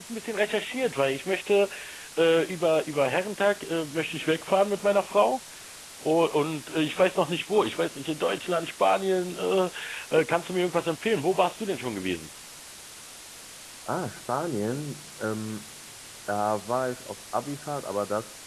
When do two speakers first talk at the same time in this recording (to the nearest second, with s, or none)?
none